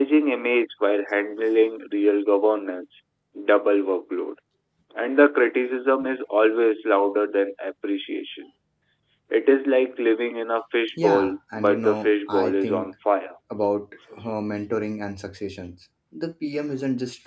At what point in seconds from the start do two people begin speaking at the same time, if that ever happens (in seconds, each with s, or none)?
11.0 s